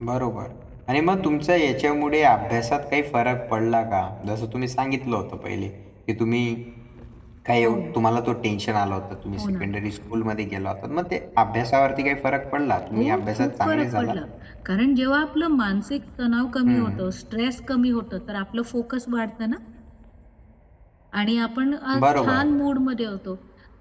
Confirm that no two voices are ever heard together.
No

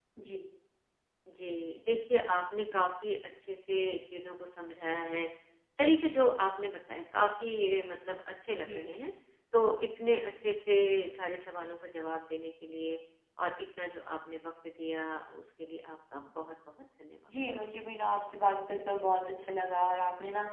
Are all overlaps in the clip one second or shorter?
Yes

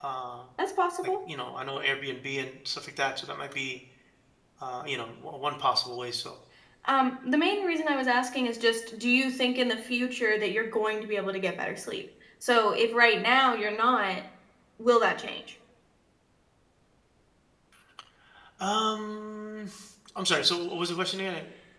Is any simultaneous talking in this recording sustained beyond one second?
No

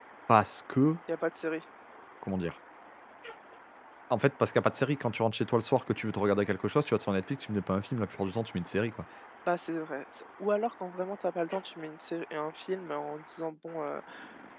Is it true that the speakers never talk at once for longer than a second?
Yes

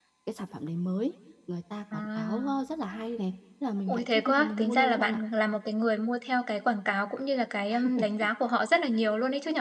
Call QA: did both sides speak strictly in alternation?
No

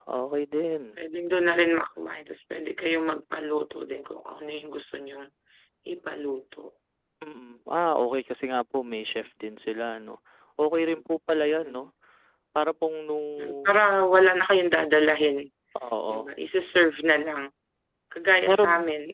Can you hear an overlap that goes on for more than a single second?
No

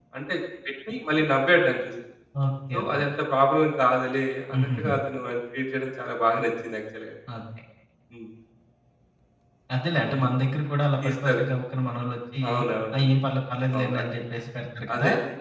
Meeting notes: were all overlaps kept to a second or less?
Yes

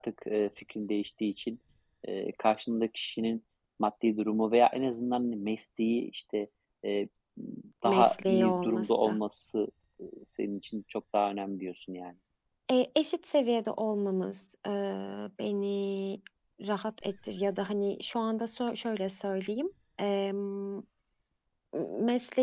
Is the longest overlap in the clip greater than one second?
Yes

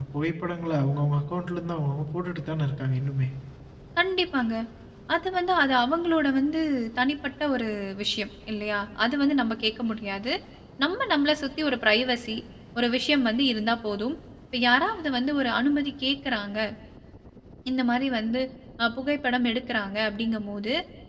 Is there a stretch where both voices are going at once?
No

